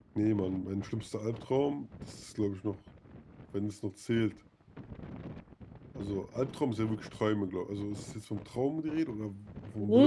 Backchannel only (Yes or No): No